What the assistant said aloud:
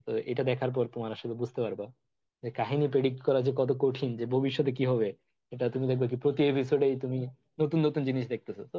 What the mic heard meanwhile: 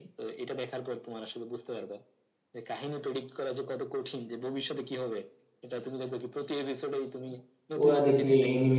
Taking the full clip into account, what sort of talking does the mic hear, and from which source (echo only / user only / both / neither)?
both